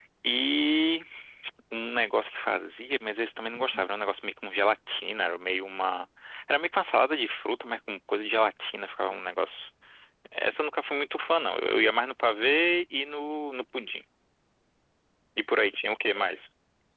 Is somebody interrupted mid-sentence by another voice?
No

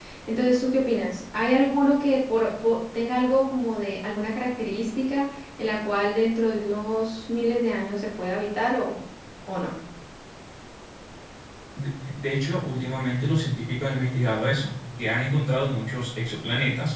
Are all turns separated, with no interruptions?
Yes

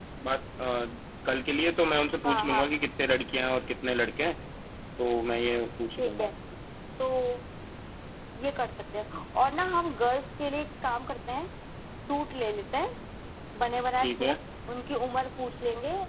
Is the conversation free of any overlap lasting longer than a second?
Yes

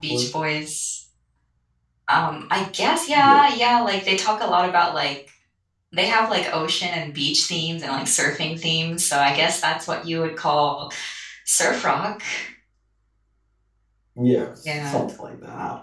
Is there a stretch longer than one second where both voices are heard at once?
No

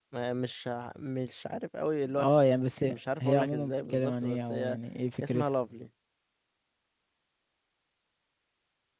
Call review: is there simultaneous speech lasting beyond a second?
Yes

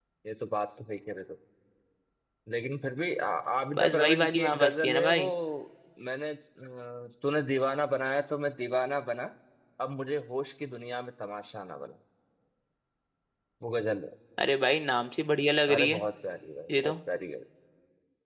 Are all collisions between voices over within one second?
No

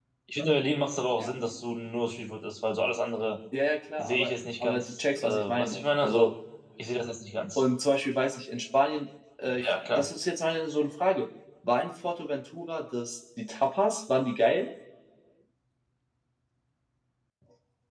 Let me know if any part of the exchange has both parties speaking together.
Yes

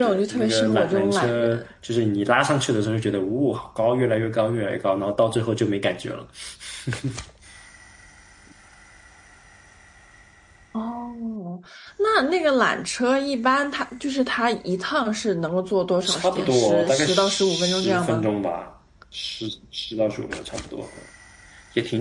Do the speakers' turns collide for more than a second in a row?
Yes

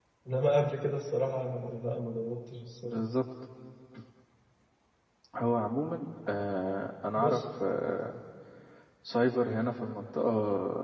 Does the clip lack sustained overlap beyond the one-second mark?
Yes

